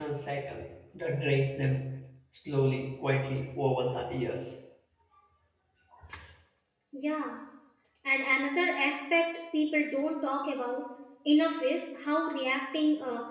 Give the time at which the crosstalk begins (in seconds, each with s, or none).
none